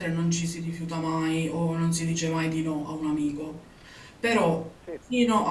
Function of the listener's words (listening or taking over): listening